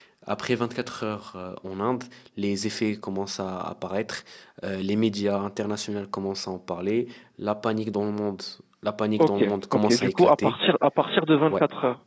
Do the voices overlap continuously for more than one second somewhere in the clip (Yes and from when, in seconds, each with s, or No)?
Yes, from 9.2 s